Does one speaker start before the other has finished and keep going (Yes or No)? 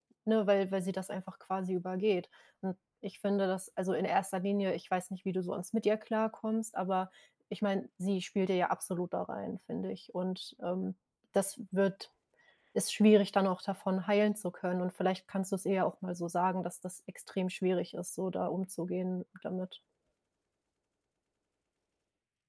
No